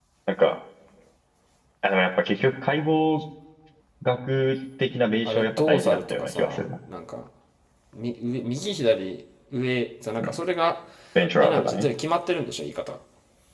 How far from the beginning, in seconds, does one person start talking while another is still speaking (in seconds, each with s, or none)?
5.2 s